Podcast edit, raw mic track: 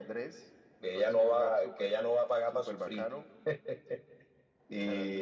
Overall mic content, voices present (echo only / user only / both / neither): echo only